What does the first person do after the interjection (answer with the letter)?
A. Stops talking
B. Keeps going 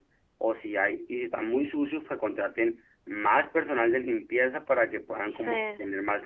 B